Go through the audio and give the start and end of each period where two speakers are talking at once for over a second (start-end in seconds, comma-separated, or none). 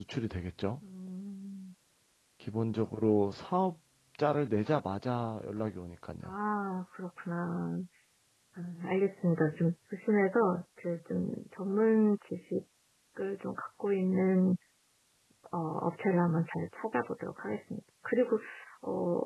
none